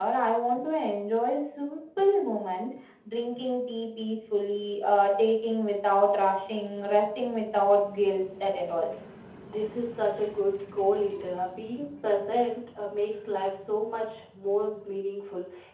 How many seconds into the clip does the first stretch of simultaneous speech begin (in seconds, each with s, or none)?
none